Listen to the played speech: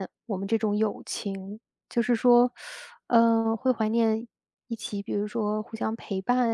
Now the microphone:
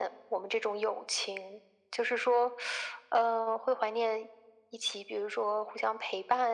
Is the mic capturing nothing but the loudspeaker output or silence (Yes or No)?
Yes